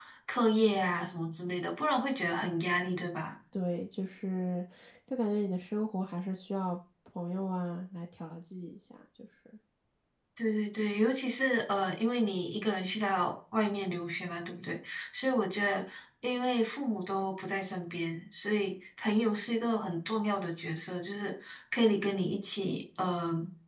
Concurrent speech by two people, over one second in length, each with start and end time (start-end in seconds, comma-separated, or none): none